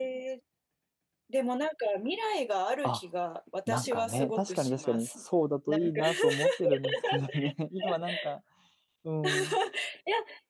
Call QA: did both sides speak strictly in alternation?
No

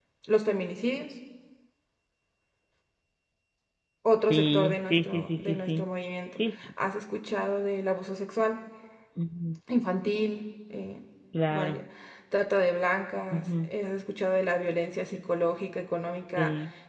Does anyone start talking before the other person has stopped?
Yes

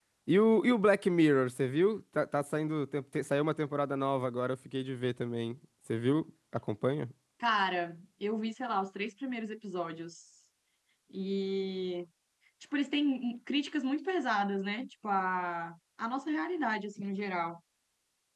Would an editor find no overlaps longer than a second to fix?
Yes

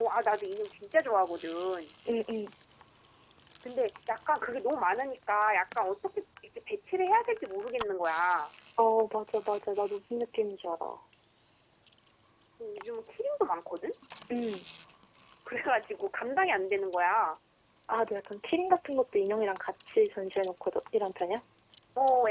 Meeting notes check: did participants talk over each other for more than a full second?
No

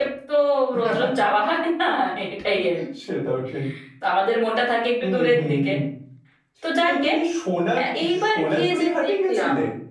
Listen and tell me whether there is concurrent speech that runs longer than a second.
Yes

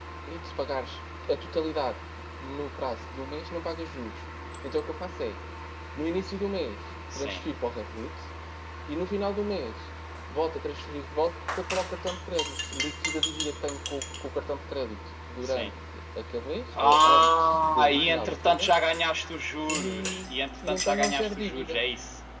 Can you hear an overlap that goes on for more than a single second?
Yes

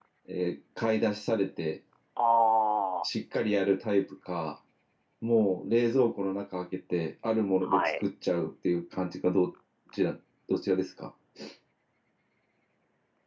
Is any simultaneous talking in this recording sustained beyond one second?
No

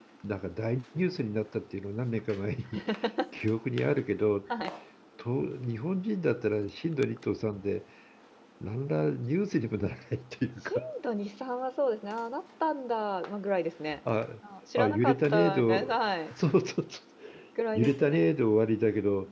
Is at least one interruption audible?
Yes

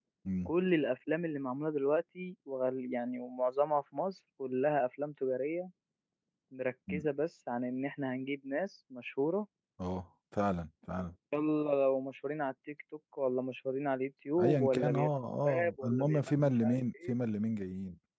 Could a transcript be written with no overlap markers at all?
No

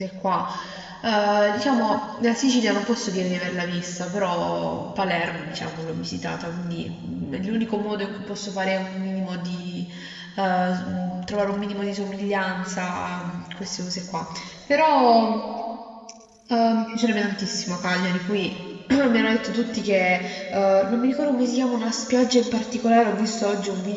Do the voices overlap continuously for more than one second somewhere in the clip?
No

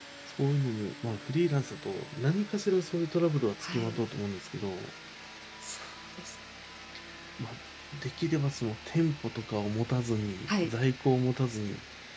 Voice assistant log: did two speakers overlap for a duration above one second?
No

